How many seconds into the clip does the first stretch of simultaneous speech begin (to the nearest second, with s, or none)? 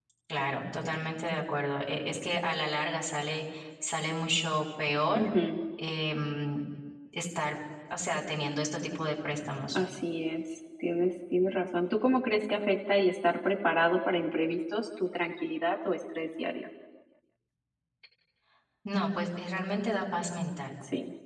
none